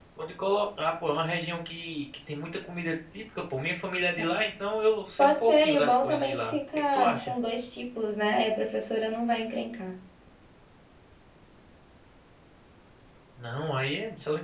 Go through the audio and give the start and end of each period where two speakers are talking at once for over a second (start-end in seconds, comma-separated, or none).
5.2-7.3